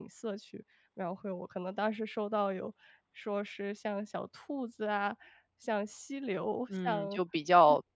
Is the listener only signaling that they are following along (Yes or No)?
No